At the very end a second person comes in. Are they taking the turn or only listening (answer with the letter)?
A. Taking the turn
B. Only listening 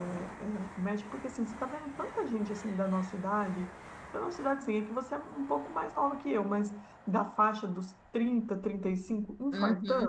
A